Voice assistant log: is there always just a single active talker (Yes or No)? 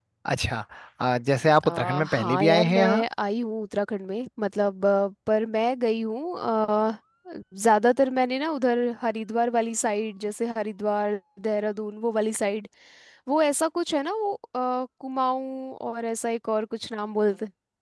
No